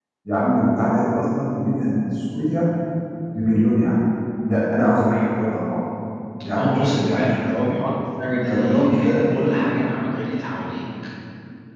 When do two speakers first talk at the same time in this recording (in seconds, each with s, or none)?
6.5 s